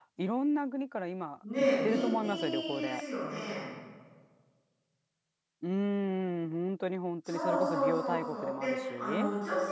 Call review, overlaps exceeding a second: present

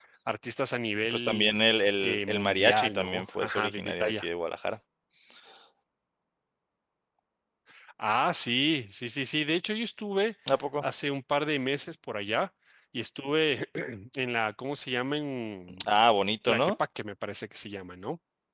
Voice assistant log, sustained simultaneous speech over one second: present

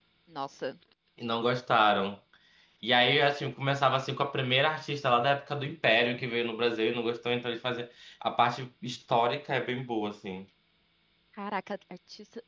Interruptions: none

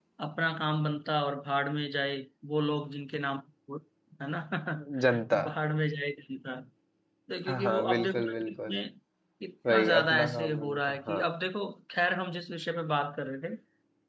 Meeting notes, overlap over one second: present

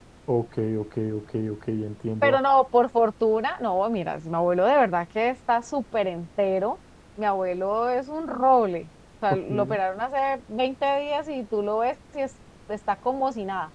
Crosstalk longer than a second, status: none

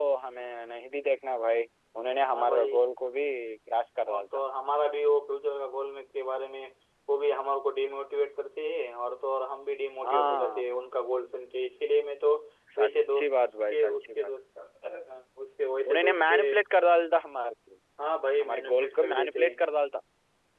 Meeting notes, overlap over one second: present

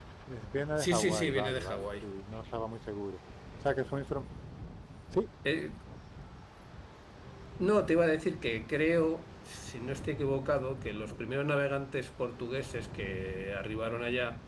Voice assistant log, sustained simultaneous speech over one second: present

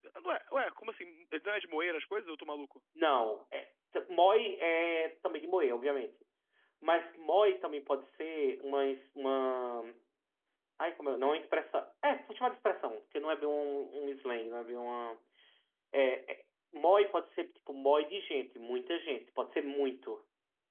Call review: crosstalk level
none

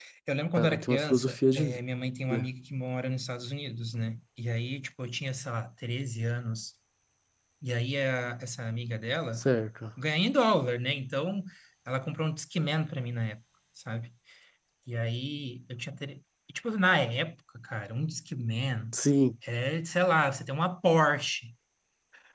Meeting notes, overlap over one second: present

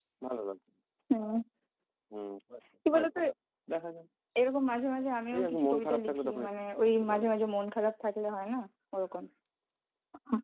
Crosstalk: present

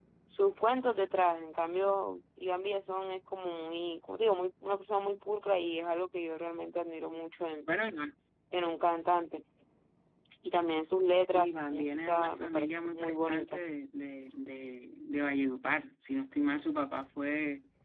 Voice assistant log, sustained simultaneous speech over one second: present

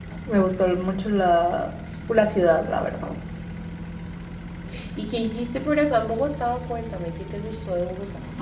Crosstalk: none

